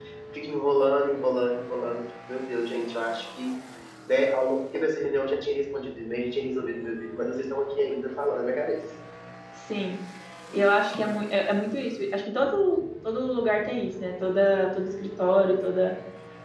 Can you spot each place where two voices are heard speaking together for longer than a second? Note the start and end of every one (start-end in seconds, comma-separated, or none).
none